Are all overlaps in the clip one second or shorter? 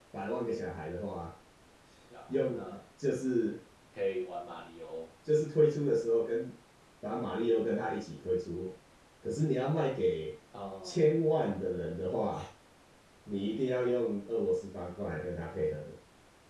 Yes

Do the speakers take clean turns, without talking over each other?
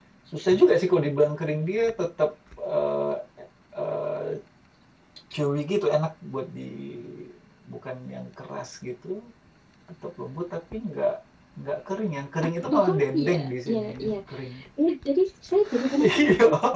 No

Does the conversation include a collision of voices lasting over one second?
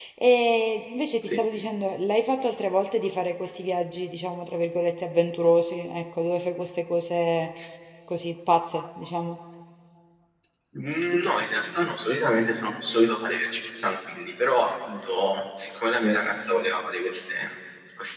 No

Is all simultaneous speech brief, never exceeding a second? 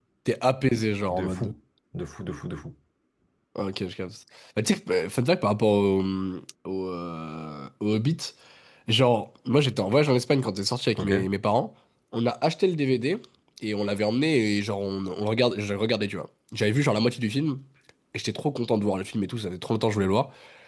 Yes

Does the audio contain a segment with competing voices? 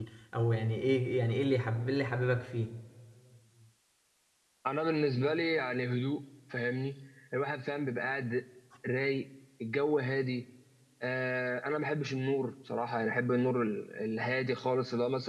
No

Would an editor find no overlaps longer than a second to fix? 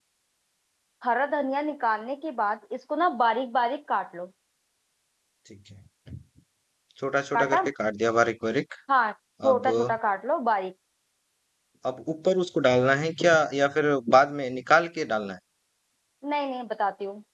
Yes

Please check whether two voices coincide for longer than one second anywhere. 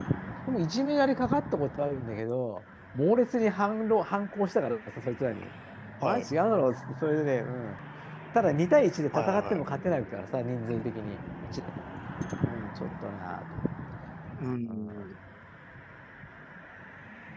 No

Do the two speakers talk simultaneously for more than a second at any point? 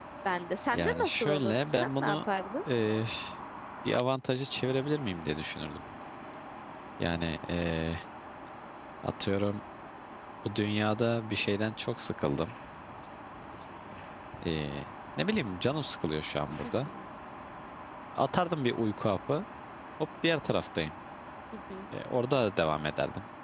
Yes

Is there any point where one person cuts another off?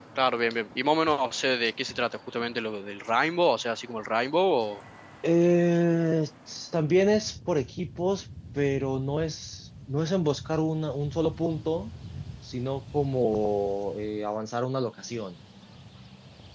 No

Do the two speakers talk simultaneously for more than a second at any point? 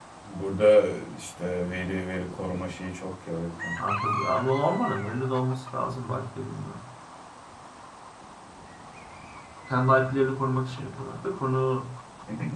No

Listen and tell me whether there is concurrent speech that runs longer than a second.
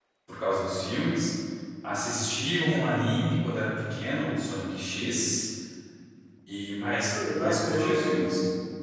Yes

